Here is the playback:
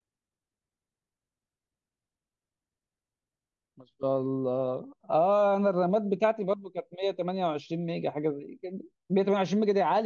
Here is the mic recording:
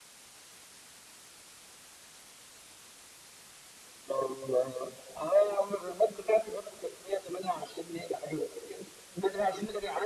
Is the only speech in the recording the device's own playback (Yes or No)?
Yes